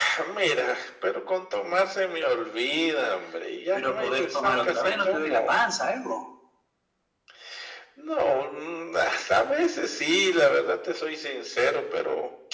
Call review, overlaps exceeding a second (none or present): present